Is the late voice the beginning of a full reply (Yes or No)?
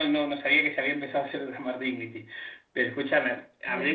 Yes